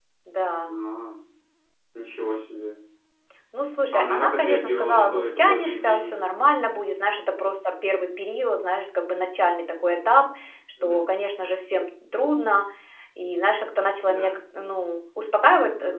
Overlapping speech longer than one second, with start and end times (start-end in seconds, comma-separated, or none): 3.9-6.2